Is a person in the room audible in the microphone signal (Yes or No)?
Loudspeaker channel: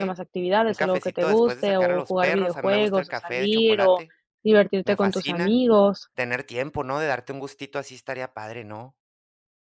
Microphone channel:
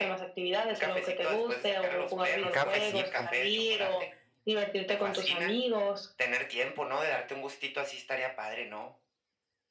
Yes